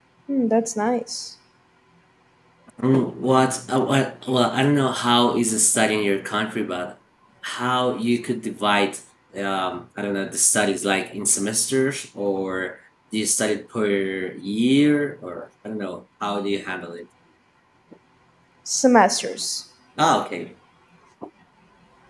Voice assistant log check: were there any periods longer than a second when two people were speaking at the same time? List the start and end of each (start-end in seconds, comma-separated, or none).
none